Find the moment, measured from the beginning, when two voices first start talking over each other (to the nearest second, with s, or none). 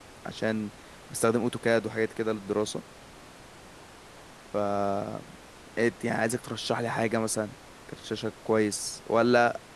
none